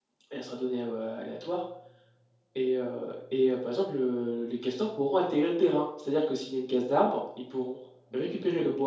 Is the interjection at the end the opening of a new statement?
Yes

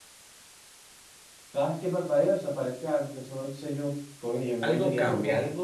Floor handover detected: Yes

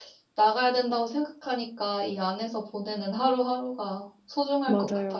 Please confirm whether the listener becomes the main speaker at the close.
Yes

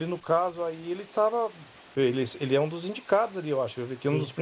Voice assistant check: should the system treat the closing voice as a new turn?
No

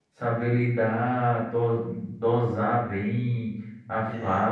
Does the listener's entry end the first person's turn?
No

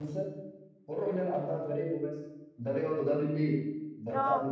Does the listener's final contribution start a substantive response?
No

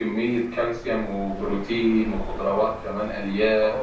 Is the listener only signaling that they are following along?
No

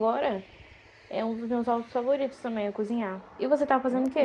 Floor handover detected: Yes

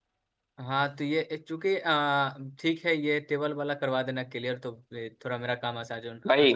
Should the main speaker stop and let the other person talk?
Yes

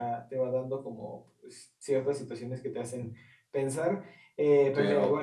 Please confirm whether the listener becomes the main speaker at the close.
Yes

